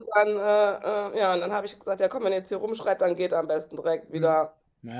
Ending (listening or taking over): taking over